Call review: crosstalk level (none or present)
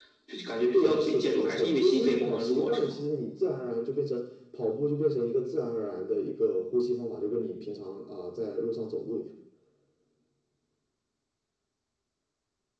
present